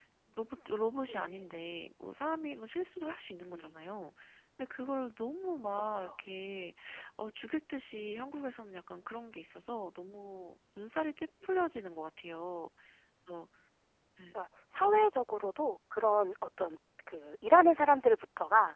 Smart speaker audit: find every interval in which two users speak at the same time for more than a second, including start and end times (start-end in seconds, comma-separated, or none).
none